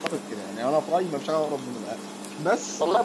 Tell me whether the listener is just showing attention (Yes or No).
No